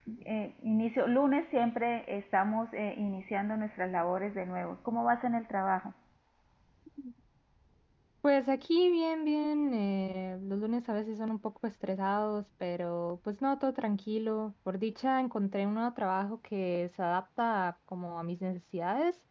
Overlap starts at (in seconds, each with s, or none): none